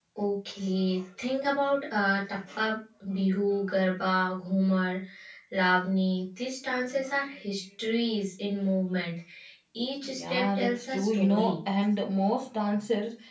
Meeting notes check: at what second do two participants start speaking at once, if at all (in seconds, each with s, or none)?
10.1 s